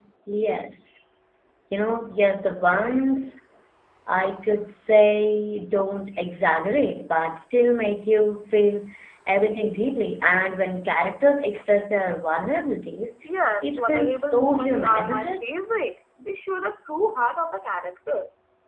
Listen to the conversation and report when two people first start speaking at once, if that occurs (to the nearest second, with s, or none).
14 s